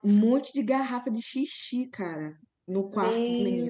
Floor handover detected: Yes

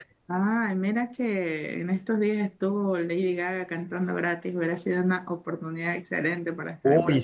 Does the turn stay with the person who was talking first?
No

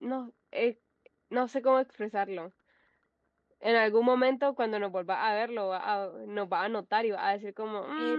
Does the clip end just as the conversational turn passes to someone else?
Yes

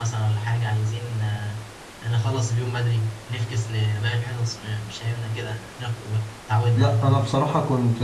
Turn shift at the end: Yes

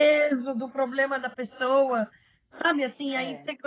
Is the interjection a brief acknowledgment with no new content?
Yes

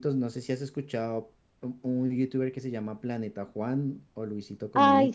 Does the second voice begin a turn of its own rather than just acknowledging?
Yes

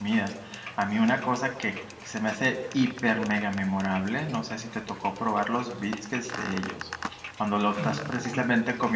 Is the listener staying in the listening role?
Yes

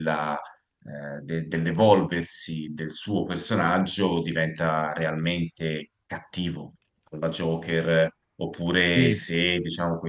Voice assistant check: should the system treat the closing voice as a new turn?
No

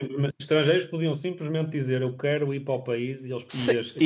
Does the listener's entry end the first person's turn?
Yes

